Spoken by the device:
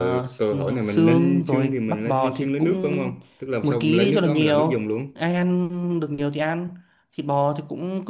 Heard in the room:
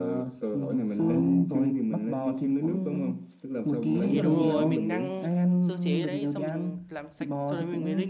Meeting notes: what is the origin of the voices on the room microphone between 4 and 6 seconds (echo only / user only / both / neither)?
both